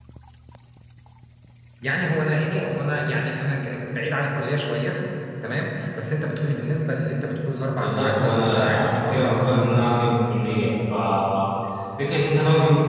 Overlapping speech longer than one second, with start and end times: 7.7-10.0

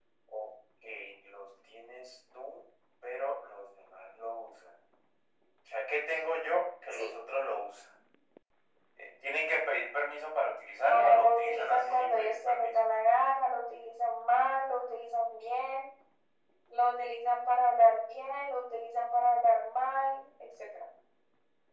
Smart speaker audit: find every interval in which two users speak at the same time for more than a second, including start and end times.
10.9-12.8

